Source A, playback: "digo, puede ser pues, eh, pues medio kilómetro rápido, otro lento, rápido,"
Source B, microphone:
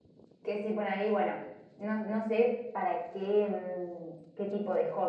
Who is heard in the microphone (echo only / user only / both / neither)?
user only